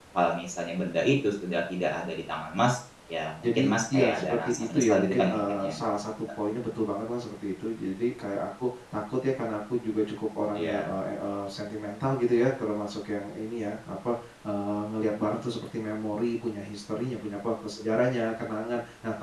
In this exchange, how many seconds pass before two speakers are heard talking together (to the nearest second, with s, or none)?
3 s